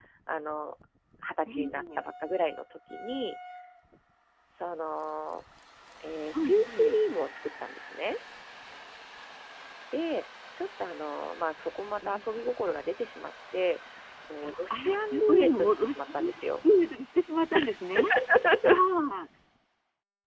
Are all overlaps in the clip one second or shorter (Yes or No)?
No